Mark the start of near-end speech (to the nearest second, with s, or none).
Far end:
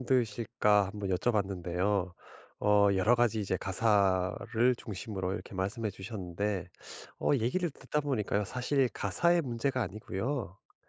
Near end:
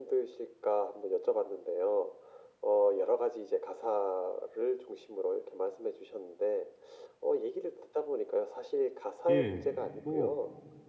9 s